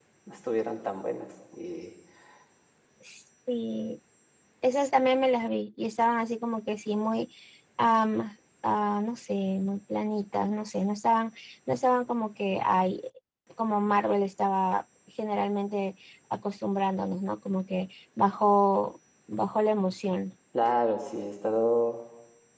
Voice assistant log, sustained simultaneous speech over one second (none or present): none